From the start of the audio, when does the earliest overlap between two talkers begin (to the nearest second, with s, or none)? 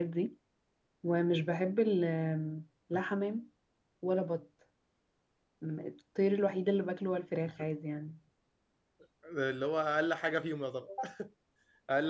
none